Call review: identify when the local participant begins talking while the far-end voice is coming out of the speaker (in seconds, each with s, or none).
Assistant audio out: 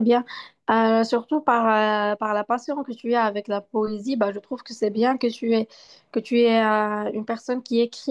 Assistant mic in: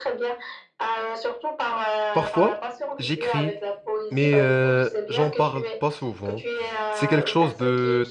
2.1 s